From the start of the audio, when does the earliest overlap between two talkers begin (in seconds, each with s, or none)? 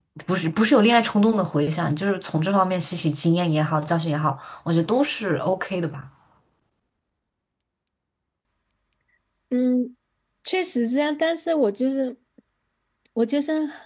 none